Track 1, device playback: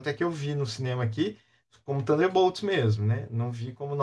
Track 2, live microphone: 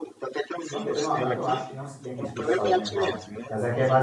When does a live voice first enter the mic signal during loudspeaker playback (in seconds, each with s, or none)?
0.7 s